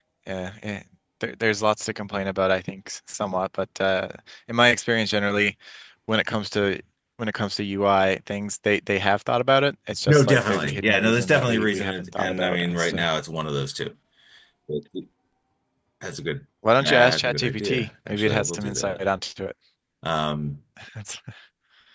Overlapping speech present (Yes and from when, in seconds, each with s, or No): Yes, from 10.1 s